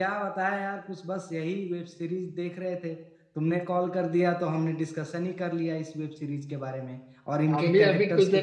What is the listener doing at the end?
taking over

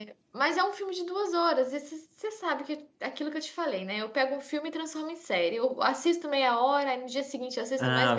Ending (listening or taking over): taking over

